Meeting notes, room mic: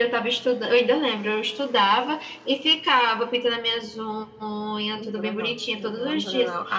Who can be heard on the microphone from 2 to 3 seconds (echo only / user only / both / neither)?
echo only